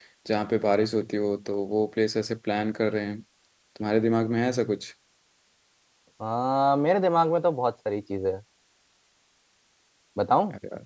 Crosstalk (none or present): none